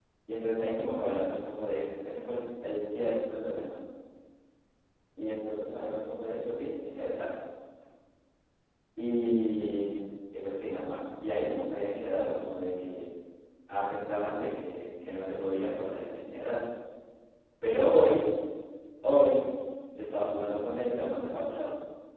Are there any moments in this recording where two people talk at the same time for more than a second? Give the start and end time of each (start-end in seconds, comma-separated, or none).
none